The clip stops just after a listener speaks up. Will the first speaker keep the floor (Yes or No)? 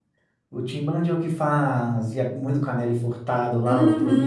No